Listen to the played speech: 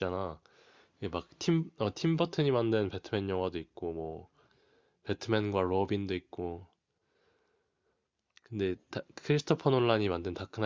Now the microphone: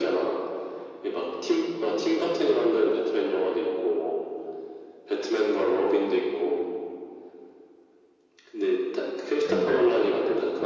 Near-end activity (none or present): present